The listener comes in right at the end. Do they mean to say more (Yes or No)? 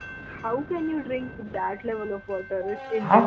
Yes